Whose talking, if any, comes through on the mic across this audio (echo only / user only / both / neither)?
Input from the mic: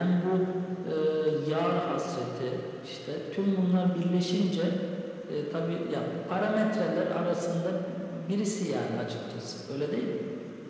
echo only